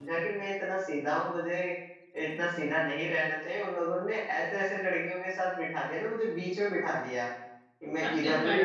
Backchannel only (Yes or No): Yes